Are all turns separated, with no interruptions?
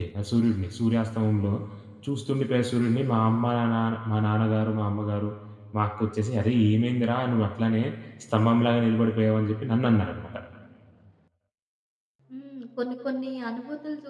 Yes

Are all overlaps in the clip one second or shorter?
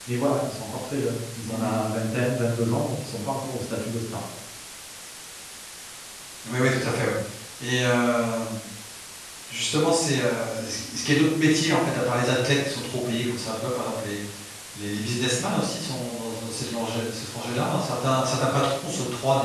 Yes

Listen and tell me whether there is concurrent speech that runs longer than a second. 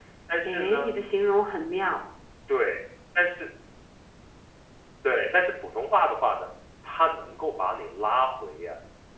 No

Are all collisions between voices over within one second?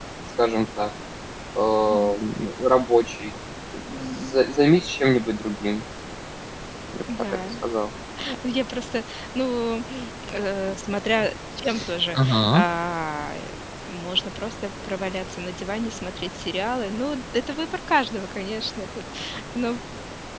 Yes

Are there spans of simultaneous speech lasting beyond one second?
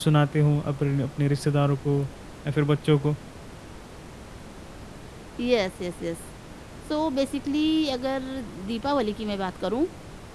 No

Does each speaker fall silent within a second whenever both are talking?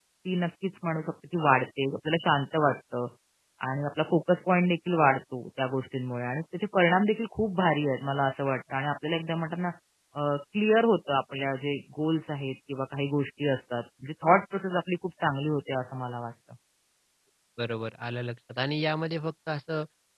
Yes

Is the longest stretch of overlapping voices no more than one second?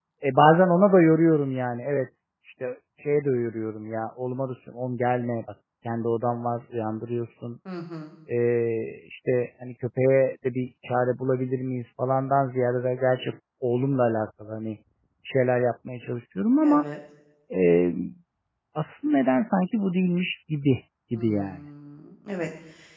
Yes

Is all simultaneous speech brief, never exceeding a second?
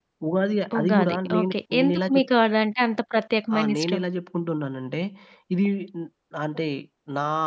No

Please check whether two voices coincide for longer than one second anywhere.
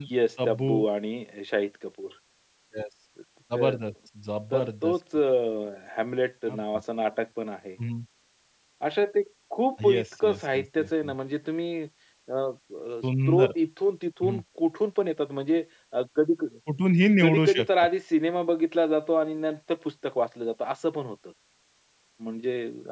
Yes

